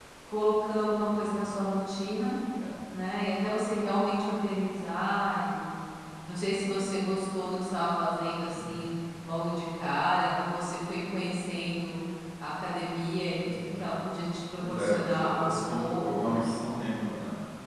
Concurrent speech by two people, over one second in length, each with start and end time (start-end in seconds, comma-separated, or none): 14.7-16.6